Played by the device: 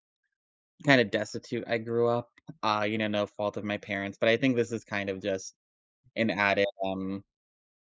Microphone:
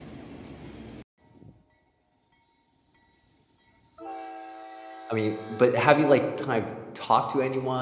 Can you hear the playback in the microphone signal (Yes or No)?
No